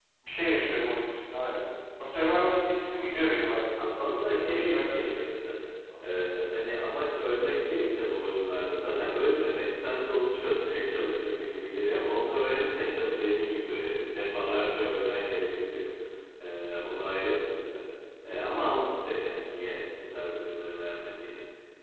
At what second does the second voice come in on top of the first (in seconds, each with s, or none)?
3.8 s